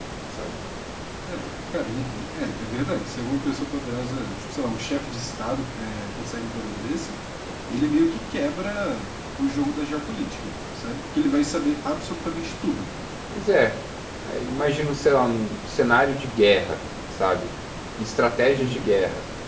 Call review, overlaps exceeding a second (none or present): none